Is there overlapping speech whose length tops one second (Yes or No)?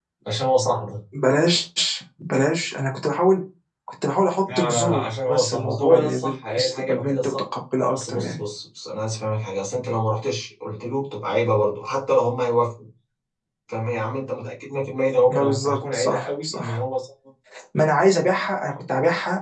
Yes